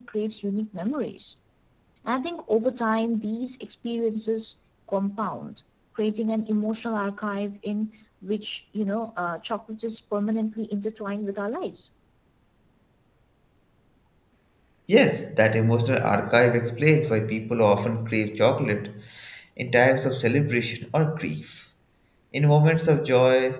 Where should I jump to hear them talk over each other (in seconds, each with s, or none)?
none